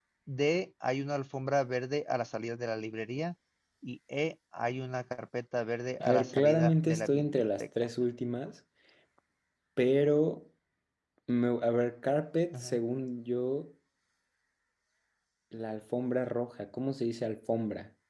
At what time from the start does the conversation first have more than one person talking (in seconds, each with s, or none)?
6.0 s